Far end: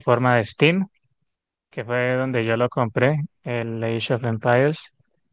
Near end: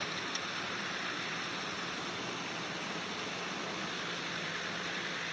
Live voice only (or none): none